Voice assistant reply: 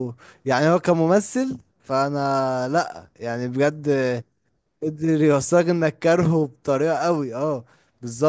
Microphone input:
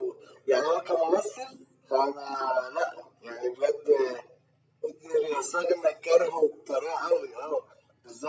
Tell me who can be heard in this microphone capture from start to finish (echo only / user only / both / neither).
echo only